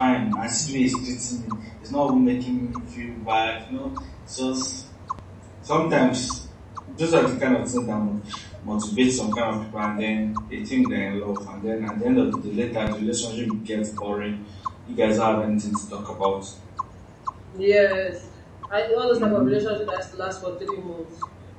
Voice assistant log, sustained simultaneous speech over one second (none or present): none